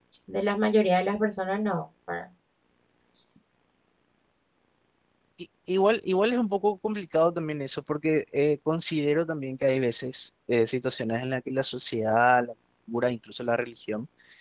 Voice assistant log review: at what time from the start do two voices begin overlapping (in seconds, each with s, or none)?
none